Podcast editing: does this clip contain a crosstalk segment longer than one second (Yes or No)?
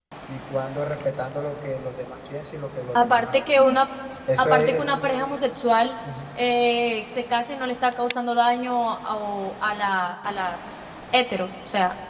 No